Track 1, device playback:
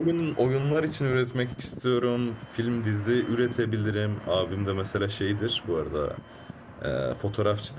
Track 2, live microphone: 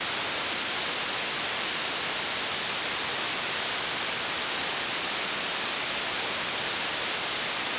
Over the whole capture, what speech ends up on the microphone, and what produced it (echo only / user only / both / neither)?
neither